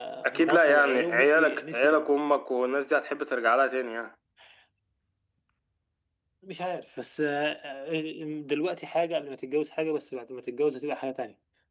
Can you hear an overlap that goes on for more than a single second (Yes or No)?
Yes